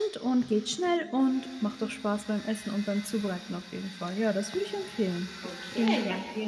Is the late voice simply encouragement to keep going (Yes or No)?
No